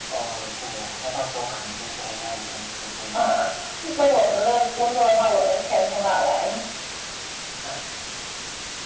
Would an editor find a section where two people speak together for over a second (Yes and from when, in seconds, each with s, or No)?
Yes, from 4.0 s